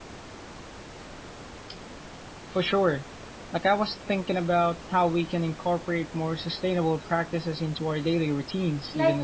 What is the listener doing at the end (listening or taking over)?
taking over